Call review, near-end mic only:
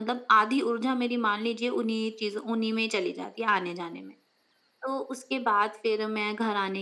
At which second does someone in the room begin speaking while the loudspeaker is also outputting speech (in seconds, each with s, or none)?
none